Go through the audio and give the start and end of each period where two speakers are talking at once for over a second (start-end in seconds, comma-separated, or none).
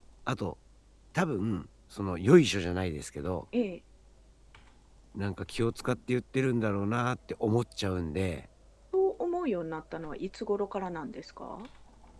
none